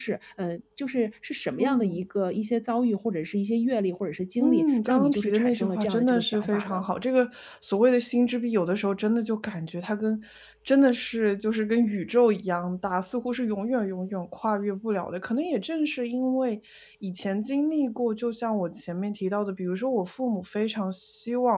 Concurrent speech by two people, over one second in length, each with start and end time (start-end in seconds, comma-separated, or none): 4.4-6.8